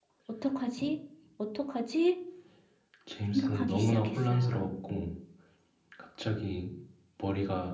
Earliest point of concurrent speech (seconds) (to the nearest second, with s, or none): 3 s